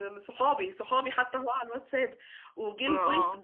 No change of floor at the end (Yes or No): Yes